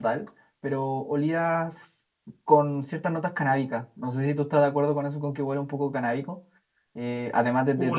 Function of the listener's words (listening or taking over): taking over